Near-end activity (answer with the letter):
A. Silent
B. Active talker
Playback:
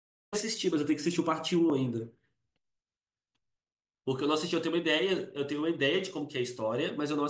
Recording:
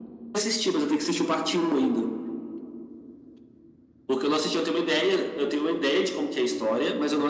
A